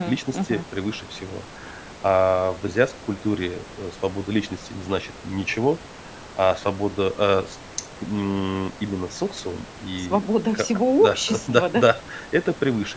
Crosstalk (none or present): present